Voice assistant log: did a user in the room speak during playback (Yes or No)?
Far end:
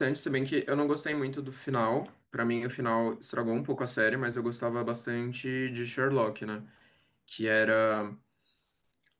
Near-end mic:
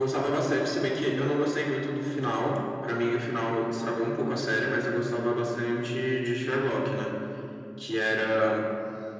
No